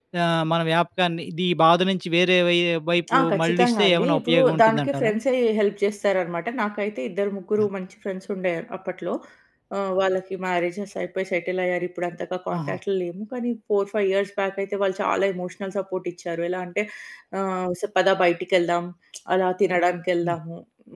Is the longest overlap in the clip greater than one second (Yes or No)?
Yes